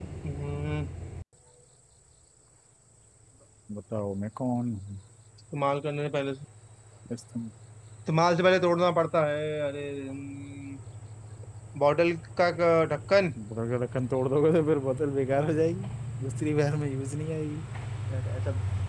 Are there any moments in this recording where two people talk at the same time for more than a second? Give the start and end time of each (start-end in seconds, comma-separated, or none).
none